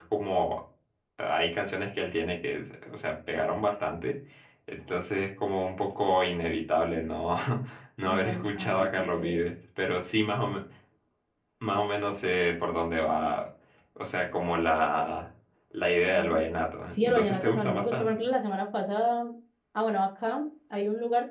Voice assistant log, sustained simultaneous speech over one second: present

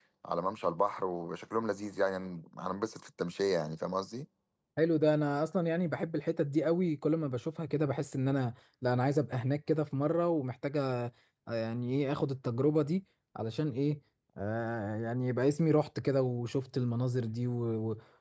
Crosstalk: none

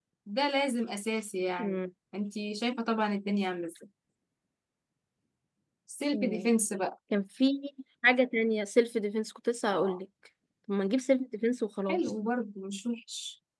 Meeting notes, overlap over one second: none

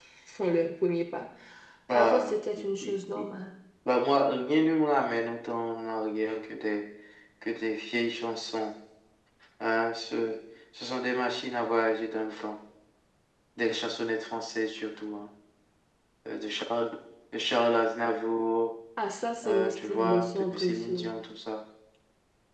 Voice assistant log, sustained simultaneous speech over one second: present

